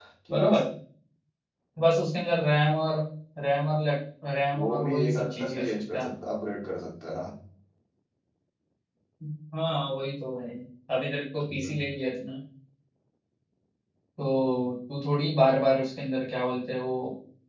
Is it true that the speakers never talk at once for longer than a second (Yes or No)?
No